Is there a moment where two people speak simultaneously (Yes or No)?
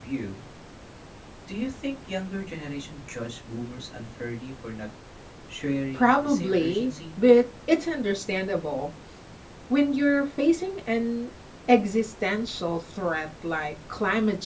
Yes